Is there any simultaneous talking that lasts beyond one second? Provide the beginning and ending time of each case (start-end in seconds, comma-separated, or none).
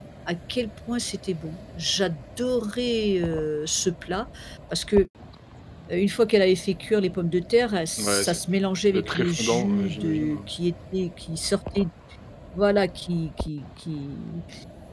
8.9-10.4